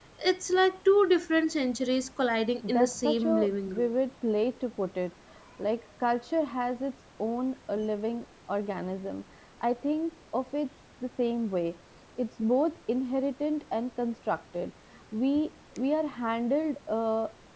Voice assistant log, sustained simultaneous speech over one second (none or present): present